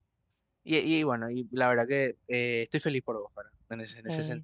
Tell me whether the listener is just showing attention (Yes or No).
Yes